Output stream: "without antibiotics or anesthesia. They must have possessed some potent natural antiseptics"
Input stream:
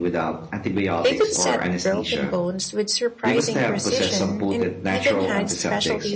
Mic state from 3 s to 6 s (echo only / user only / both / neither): both